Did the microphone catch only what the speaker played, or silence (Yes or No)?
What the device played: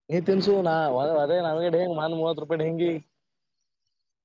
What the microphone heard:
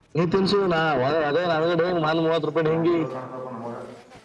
No